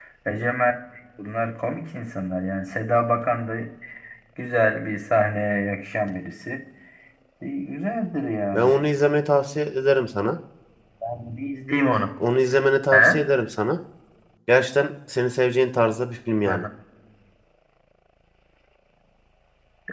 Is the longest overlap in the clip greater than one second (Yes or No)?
No